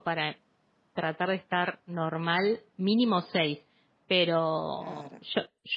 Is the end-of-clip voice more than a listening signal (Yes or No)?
No